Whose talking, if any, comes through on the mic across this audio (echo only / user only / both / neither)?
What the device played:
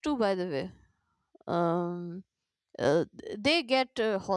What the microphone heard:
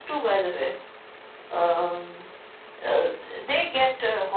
echo only